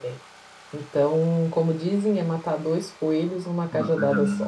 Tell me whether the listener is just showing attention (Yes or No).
No